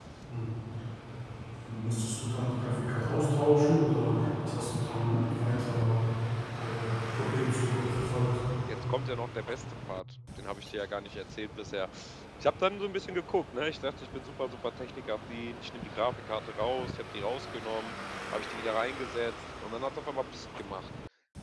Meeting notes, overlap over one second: none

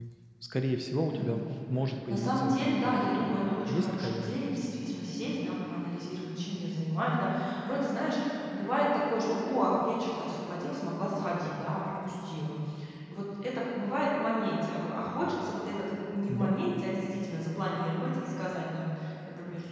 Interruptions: present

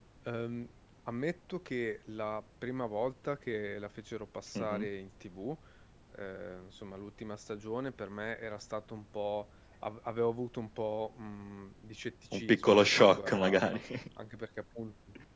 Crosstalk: present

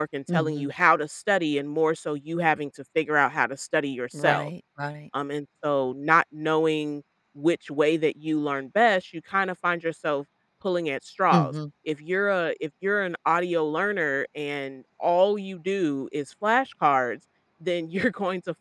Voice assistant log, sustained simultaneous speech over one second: none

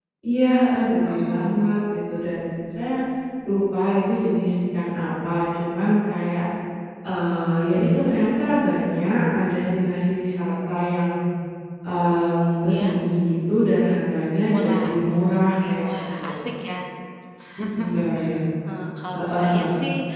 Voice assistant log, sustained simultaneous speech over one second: present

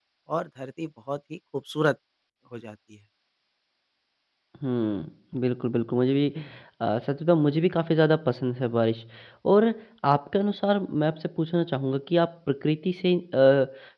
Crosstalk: none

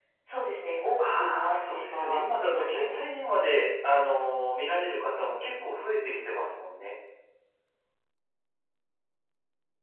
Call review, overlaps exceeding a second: present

